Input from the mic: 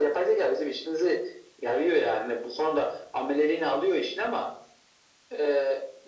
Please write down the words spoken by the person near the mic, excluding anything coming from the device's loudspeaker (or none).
none